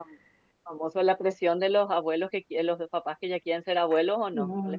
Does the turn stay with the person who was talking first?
No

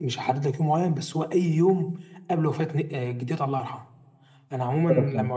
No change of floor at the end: Yes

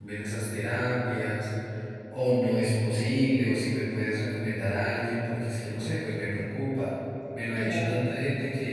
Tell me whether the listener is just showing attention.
Yes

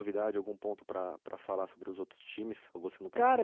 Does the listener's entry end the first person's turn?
Yes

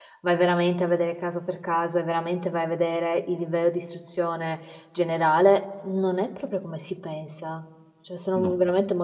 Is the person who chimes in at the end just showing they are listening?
Yes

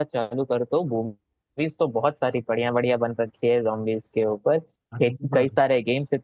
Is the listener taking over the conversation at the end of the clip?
No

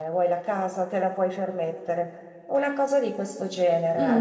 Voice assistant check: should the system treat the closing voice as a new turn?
Yes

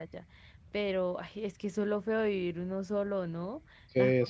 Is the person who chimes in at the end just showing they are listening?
No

